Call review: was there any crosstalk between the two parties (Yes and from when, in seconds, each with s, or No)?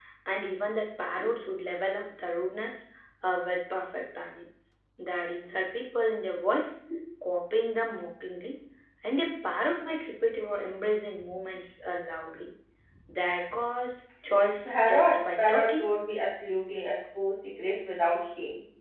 Yes, from 14.7 s